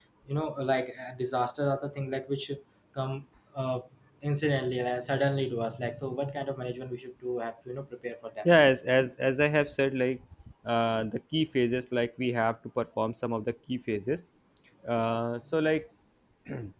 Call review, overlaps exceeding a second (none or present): none